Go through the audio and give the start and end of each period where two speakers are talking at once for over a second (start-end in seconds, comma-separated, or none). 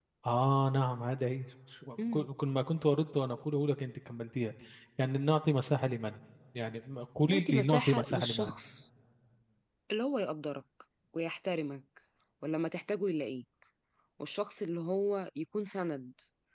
7.3-8.6